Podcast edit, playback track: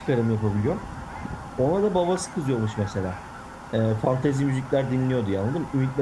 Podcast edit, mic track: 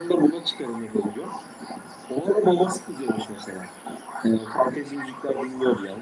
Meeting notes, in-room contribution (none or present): none